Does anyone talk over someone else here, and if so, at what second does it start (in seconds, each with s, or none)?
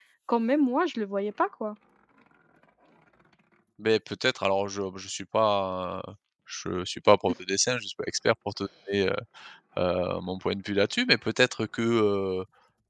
none